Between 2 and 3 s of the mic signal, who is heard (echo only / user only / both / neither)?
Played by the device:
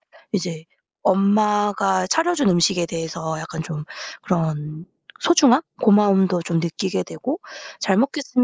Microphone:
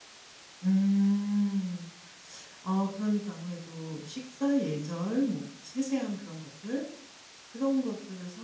user only